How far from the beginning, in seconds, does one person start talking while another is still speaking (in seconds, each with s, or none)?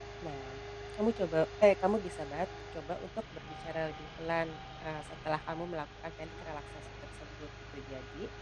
none